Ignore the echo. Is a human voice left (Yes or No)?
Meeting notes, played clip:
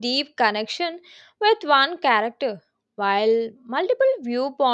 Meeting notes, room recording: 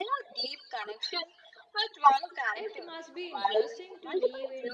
Yes